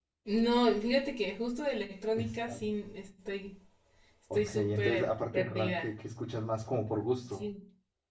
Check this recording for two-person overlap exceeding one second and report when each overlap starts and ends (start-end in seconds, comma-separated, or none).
4.3-6.0